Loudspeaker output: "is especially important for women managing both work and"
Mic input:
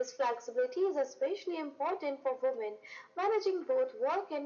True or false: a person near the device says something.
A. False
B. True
A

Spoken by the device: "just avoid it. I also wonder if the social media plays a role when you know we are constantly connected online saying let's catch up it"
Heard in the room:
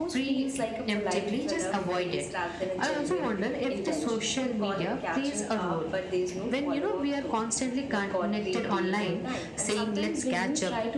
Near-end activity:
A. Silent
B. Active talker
B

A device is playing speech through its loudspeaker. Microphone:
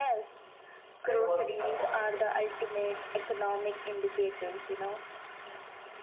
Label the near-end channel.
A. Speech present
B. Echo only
A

